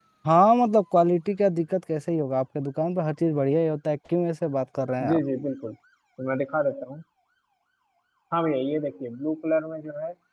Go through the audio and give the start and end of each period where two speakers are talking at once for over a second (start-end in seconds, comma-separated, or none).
none